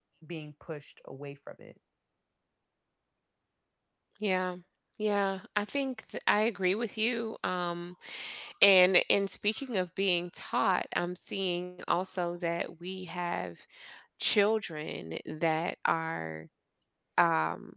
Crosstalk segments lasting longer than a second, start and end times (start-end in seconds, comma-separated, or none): none